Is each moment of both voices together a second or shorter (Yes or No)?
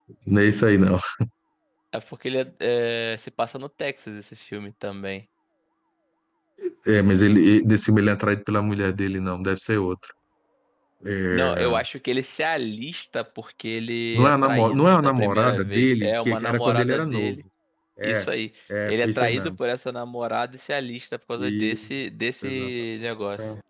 No